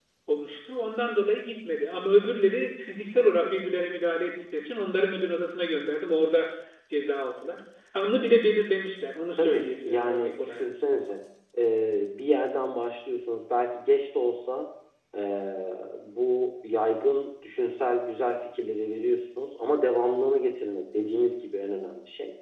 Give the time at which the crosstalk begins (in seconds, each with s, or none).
9.4 s